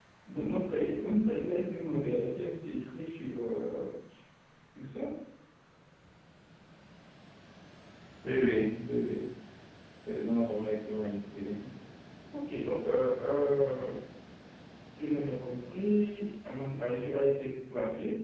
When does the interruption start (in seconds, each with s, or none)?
none